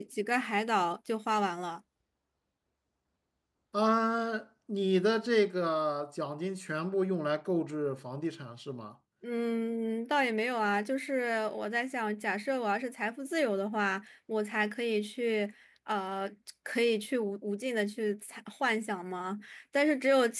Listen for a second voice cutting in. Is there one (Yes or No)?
No